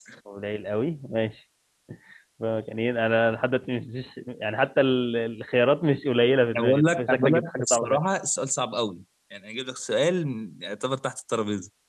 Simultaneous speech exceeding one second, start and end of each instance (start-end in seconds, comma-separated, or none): 6.5-8.0